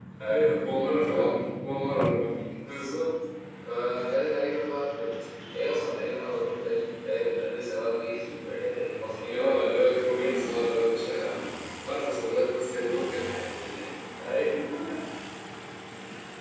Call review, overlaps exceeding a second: present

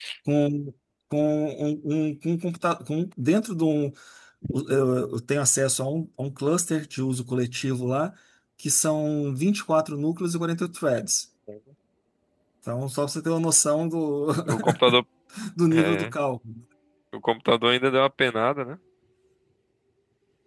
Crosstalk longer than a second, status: none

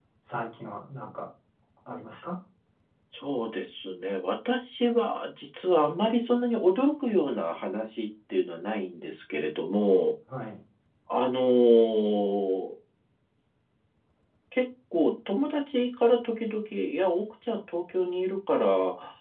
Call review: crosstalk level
none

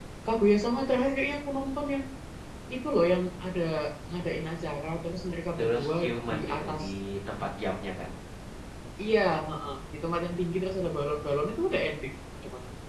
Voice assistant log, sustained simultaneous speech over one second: present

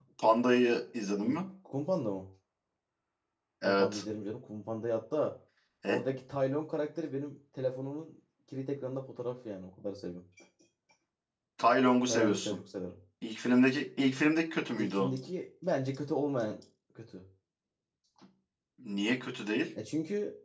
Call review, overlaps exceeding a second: none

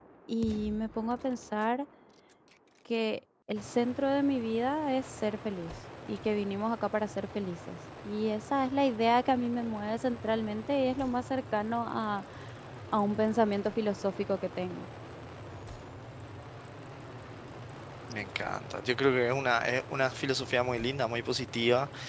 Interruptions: none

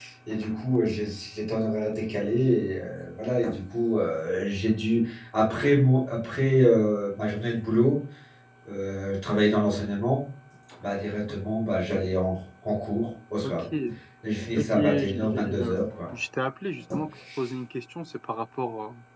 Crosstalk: present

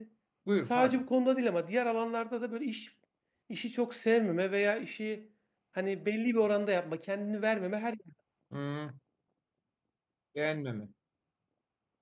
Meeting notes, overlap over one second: none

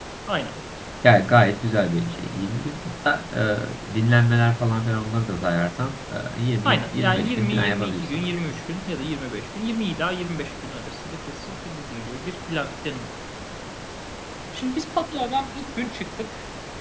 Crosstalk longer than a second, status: present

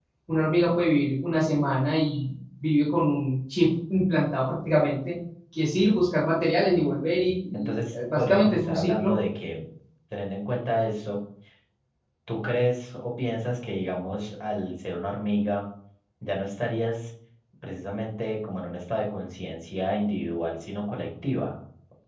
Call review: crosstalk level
present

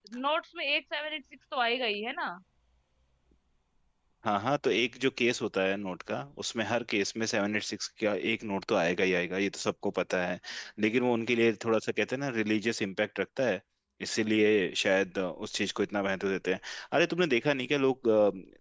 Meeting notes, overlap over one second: none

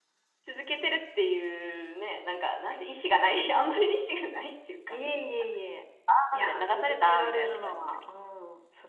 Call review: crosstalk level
present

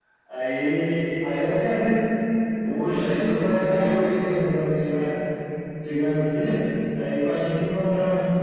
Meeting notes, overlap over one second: present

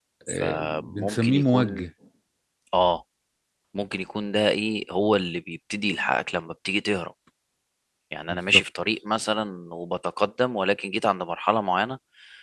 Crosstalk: present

